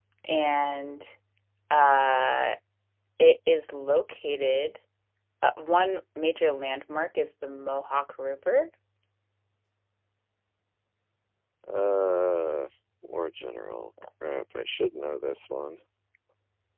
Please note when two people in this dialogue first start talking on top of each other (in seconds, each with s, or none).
none